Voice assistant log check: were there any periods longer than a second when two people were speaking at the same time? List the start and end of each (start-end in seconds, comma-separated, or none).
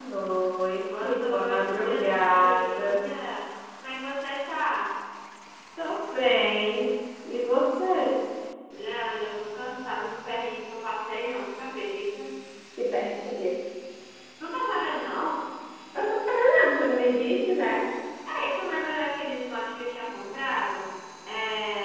0.9-3.0